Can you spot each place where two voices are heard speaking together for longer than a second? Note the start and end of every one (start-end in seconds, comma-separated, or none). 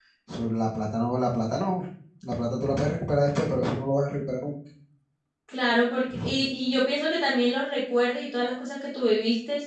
none